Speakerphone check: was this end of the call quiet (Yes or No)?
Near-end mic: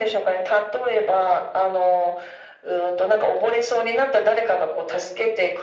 Yes